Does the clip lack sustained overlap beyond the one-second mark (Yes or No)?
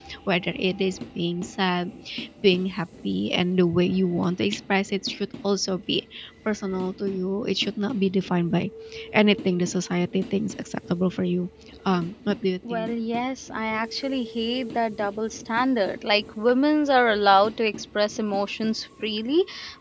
Yes